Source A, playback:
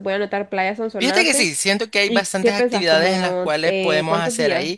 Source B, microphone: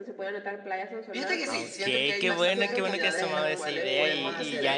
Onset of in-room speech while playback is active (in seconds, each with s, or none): 1.5 s